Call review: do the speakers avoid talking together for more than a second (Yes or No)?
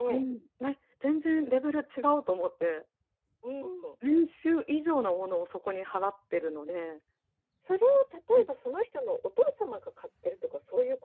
Yes